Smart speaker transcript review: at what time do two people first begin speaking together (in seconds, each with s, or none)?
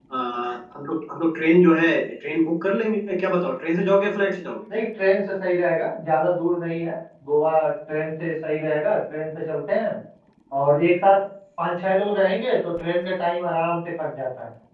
none